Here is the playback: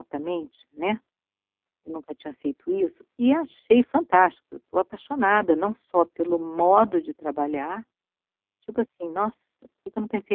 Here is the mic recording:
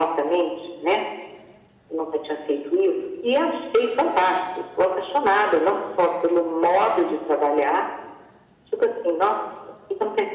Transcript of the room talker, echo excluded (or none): none